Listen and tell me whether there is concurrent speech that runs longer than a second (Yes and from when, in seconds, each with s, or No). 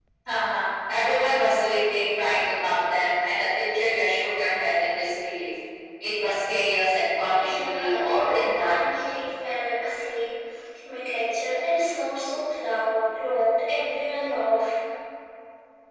Yes, from 7.4 s